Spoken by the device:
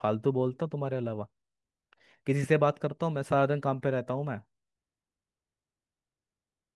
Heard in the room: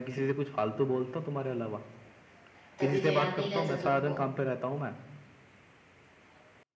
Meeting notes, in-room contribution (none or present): present